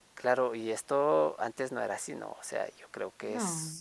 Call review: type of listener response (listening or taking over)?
listening